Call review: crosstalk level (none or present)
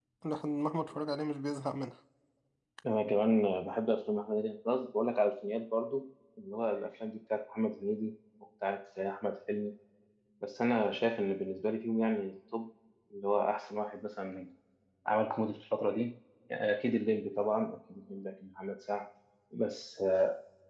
none